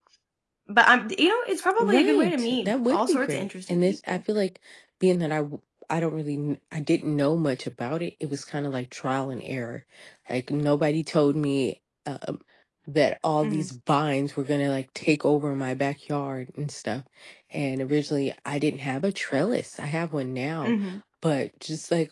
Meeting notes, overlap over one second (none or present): present